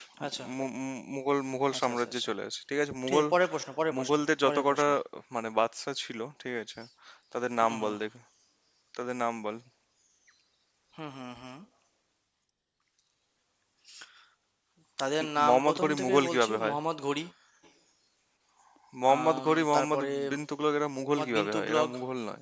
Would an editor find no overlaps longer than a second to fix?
No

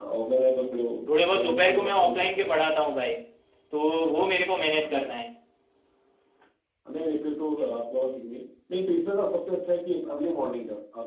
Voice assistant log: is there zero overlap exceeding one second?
No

